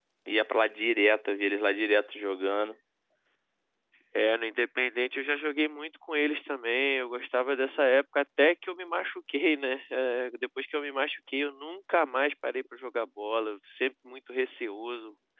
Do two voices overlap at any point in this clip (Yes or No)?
No